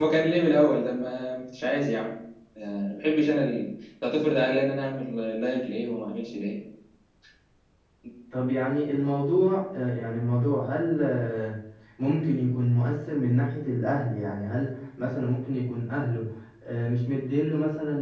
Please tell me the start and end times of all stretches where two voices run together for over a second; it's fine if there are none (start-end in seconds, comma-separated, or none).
none